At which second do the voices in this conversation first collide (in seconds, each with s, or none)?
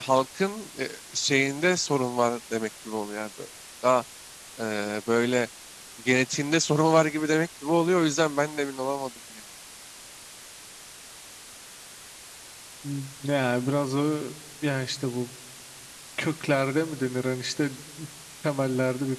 none